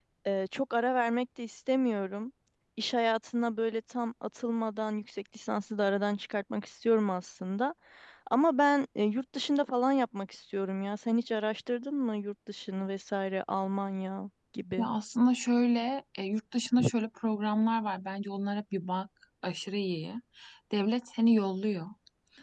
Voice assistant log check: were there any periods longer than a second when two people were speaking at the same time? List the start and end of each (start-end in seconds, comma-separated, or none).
none